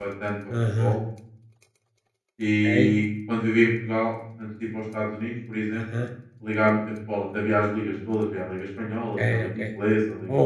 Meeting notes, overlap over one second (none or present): none